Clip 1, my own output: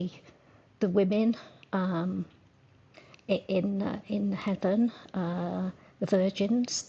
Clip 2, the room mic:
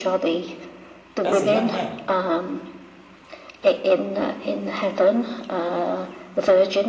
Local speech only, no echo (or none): As a young man,